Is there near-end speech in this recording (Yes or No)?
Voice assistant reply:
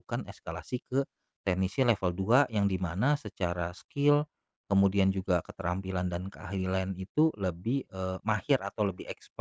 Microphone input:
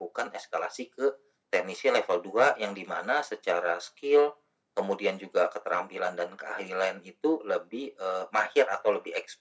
No